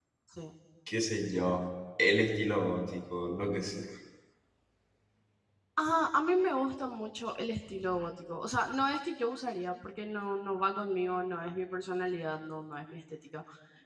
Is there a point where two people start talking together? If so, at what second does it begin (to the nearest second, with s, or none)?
none